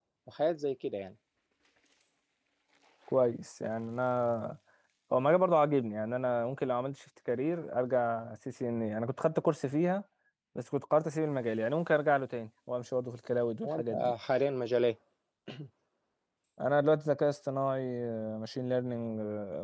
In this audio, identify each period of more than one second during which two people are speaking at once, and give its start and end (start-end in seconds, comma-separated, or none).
none